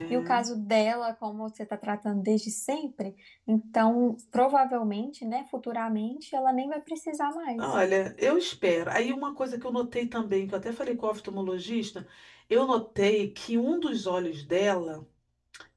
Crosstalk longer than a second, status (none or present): none